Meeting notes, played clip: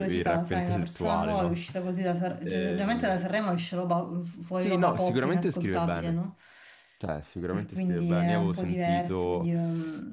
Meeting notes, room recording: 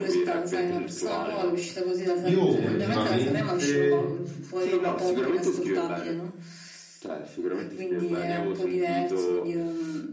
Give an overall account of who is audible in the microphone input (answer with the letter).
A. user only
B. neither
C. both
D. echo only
C